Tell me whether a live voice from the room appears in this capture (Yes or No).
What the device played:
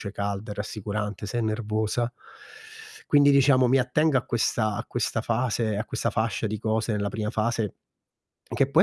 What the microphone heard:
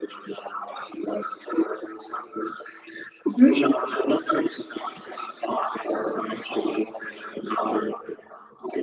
Yes